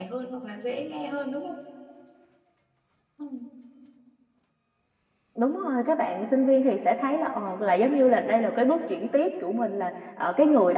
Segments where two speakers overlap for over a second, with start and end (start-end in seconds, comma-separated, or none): none